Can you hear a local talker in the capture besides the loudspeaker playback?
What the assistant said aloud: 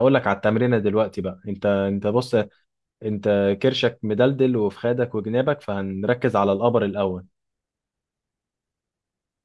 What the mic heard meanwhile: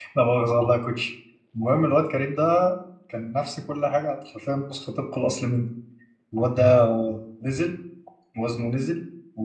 Yes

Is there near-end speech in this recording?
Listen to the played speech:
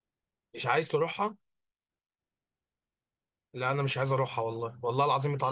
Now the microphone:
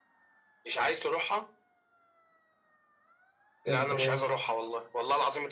Yes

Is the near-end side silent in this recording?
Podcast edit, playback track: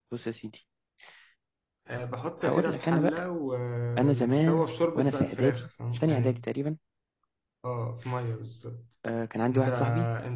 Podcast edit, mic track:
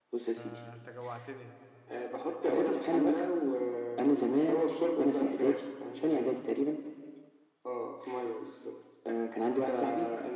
No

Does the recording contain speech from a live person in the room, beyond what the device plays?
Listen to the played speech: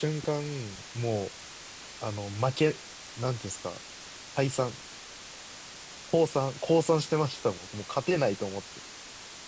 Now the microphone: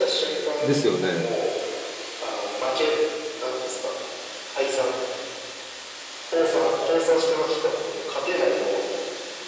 Yes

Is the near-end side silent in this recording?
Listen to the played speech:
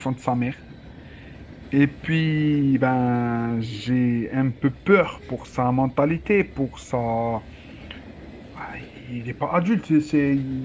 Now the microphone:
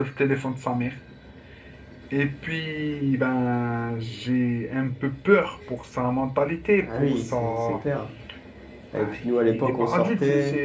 No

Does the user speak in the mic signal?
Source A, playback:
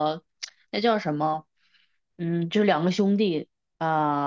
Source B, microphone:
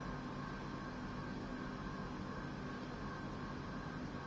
No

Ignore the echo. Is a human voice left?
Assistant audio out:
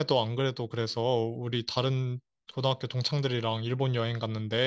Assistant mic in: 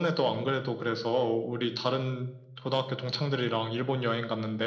No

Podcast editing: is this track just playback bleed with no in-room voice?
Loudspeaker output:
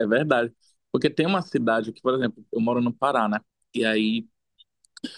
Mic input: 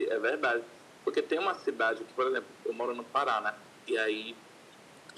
Yes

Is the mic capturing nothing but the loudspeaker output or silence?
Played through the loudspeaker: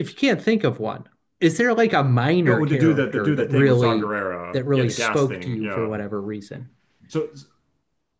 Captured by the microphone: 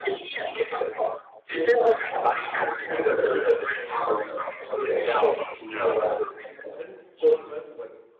No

